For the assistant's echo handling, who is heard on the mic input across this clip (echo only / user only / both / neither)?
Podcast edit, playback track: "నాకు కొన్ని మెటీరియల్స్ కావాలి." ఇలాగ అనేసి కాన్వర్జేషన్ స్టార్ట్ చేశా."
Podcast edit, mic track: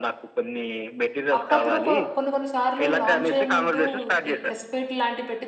both